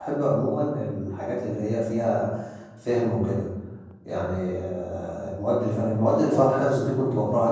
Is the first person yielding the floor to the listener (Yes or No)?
No